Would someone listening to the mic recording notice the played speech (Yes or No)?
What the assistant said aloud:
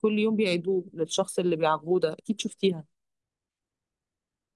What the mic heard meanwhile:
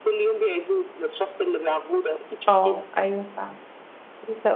Yes